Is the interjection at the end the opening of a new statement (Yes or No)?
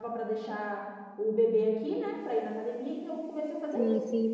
Yes